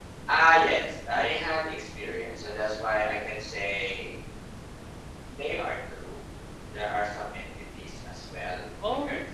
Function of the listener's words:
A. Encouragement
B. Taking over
B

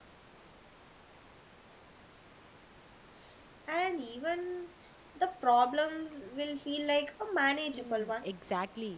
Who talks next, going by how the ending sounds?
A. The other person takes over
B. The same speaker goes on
A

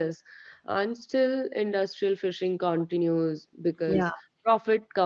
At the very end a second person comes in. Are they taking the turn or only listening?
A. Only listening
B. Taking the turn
A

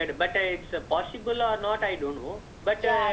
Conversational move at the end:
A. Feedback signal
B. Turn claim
A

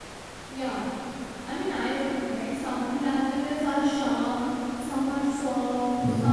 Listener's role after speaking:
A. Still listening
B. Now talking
A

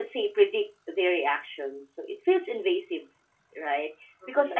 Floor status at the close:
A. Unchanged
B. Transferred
A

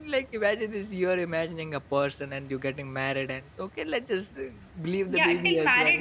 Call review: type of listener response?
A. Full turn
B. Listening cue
A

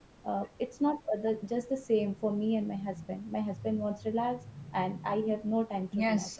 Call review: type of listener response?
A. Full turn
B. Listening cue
A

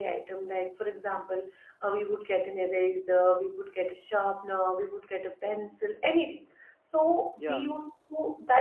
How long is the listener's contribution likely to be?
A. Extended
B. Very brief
B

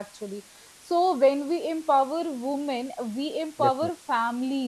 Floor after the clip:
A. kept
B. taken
A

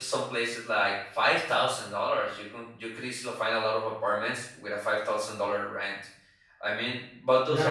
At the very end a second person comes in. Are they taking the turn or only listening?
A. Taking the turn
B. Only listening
A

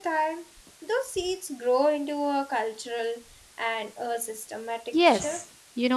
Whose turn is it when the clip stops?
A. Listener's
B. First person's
A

